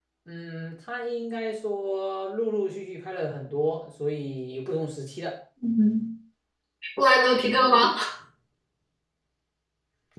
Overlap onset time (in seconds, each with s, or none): none